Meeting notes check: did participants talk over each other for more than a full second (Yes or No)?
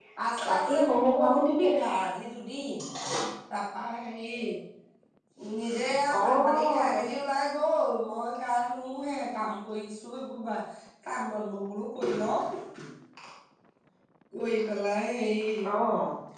Yes